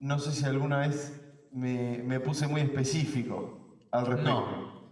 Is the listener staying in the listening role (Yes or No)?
No